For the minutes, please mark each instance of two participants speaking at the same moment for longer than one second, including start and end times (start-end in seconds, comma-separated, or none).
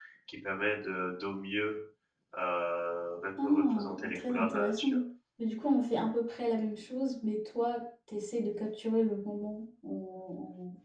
3.4-5.0